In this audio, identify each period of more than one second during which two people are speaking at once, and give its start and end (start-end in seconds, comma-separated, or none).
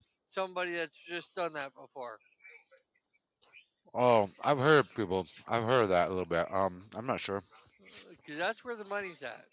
none